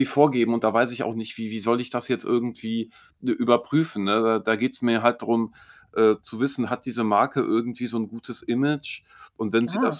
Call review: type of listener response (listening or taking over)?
listening